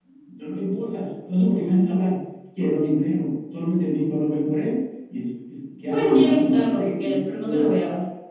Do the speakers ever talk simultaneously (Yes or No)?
Yes